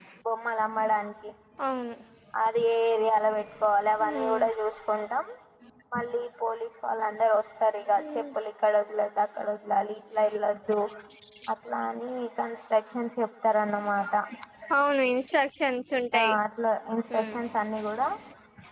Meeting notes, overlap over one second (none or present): none